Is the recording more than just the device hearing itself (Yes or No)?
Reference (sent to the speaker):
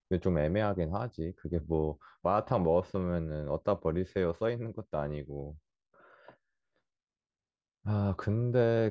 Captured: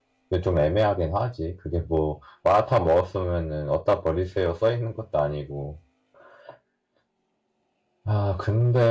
No